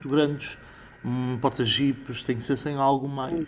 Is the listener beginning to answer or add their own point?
Yes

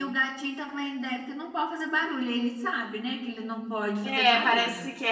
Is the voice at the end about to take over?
Yes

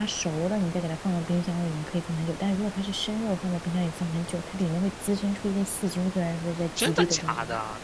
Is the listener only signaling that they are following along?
No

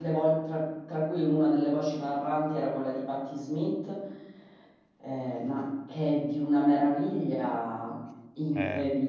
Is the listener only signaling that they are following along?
Yes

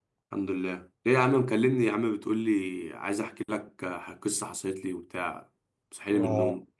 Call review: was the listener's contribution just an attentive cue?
No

